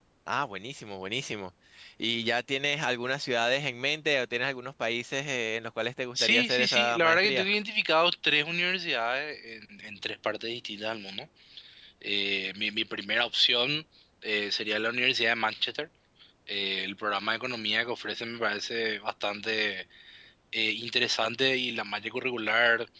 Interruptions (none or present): present